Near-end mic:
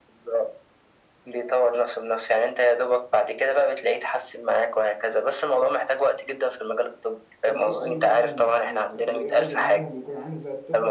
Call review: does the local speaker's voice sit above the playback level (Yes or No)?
No